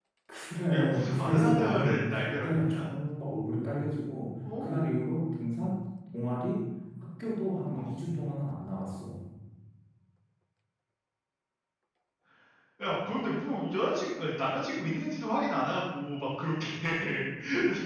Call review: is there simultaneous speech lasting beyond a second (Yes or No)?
Yes